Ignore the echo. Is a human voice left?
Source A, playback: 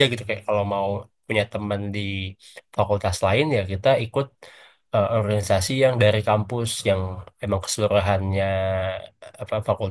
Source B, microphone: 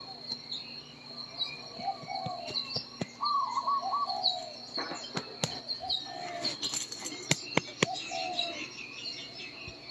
No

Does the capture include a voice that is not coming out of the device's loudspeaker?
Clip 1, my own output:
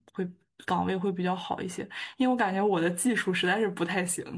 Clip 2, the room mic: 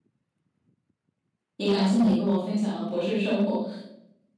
Yes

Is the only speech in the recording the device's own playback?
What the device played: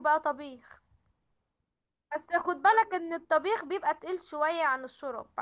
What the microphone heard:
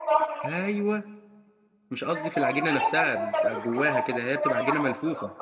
No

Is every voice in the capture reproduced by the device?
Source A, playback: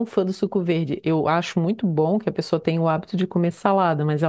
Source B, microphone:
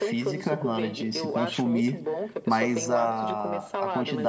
No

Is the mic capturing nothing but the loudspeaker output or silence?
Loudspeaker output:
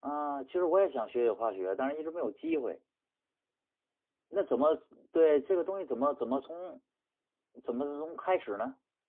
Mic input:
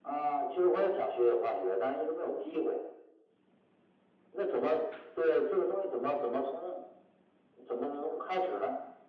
Yes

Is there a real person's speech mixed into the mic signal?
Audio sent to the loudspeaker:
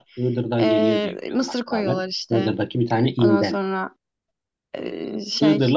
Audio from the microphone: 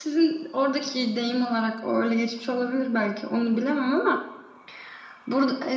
Yes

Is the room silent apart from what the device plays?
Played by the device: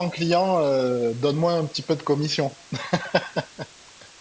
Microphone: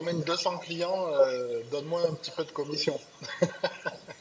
Yes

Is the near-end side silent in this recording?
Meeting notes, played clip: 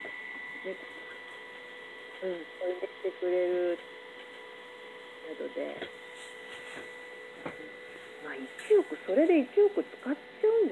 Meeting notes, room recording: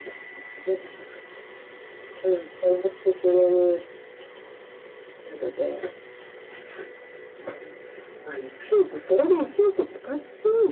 Yes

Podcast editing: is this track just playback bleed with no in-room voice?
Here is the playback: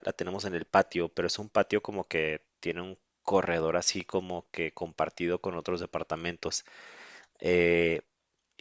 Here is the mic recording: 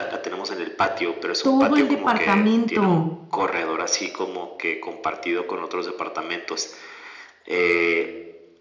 No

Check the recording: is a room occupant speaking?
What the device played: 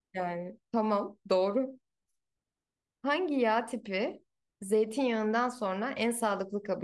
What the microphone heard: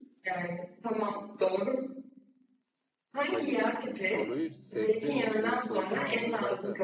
Yes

